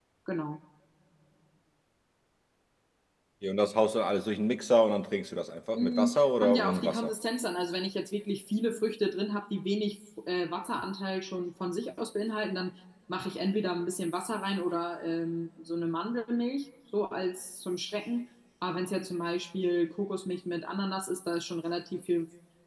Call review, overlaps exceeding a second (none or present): present